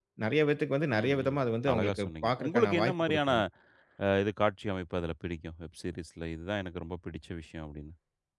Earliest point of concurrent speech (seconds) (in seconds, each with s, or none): 1.0 s